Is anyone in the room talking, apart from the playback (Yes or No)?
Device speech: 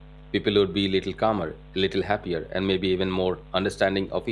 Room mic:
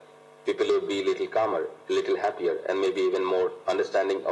No